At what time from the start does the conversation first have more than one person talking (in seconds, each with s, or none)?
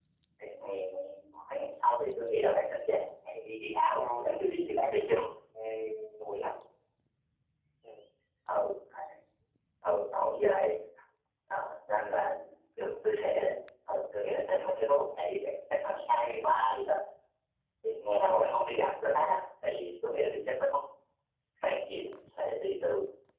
3.9 s